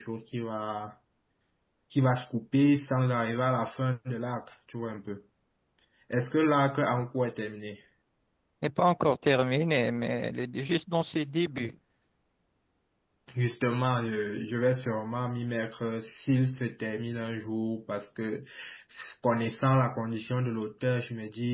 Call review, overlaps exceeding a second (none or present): none